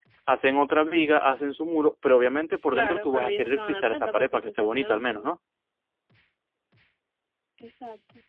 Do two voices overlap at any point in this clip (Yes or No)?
Yes